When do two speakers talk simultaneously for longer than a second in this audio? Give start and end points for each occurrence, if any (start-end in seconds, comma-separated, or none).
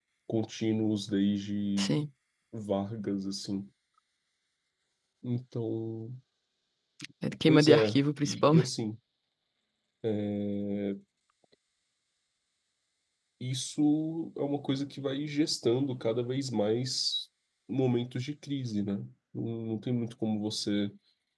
7.5-8.7